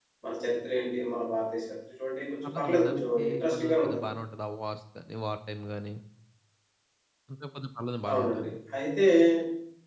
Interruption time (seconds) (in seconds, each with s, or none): 2.4 s